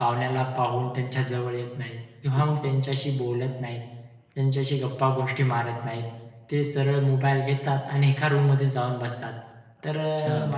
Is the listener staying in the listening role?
Yes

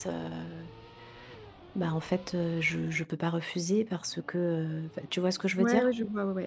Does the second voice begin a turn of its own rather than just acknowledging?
Yes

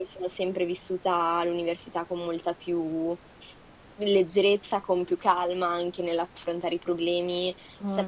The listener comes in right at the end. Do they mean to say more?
No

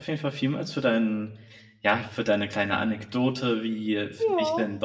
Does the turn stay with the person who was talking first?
Yes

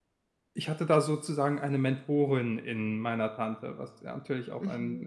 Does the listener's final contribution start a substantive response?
Yes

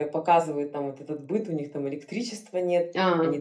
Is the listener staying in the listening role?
Yes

